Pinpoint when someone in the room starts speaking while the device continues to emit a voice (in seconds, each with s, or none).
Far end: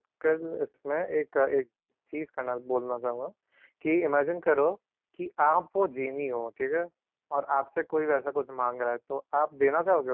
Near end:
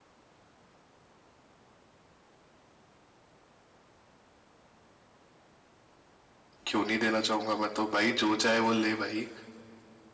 6.7 s